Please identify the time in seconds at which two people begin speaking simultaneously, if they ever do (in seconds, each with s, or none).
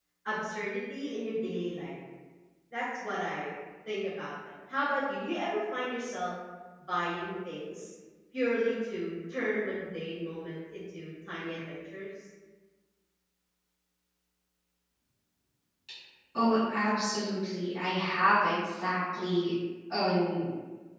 none